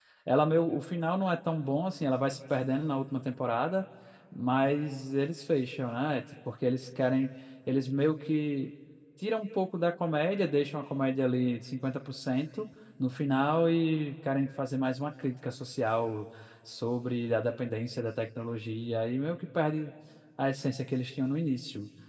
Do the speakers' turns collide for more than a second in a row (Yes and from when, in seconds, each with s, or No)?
No